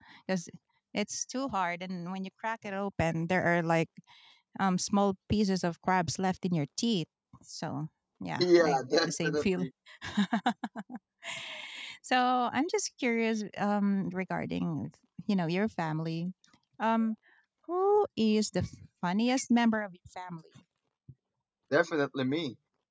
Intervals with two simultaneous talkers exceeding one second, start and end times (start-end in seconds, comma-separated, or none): 8.4-9.7